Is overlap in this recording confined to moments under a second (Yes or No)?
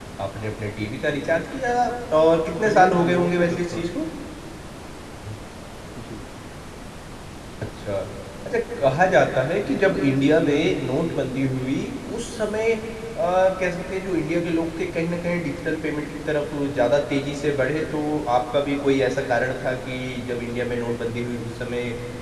No